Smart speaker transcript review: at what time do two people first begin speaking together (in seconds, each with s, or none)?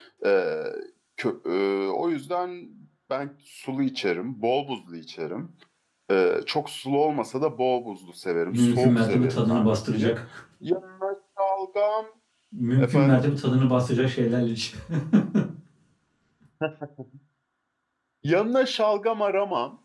8.5 s